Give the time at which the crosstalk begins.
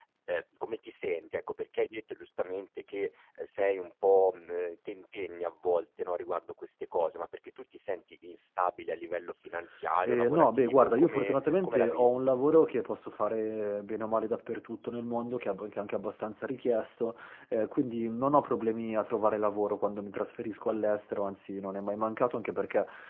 10.0 s

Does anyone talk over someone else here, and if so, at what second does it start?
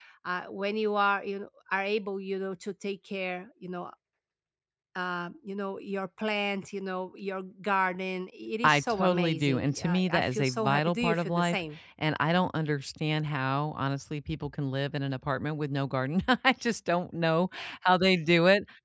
8.6 s

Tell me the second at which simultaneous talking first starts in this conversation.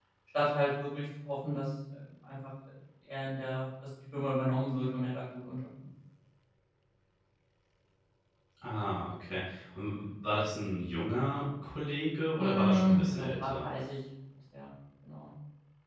12.4 s

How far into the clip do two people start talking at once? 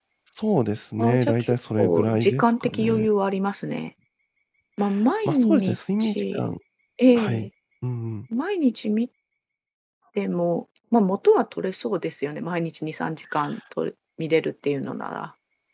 1.0 s

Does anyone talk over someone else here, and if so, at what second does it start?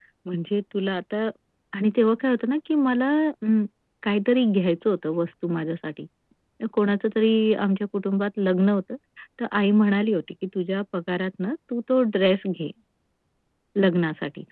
none

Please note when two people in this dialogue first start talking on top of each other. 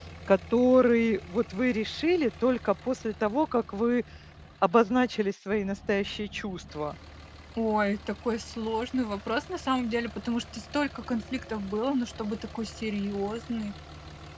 none

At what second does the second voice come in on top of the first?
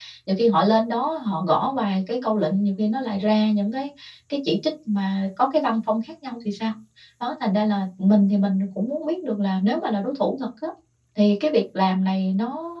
none

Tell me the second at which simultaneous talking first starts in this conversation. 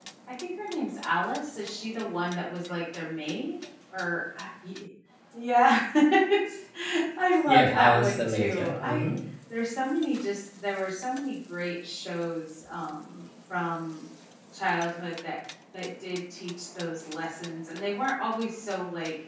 7.5 s

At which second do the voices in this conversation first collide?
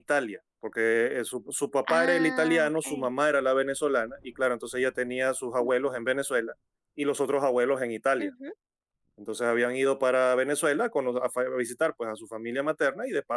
1.9 s

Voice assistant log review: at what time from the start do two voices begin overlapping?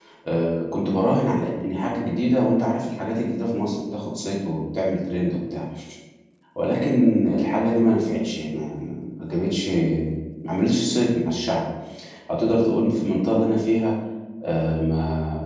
none

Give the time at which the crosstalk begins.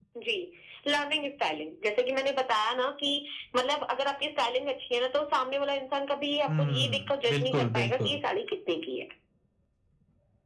6.5 s

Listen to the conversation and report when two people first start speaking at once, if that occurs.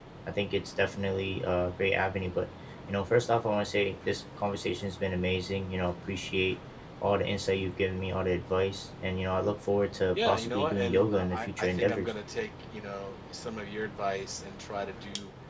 10.2 s

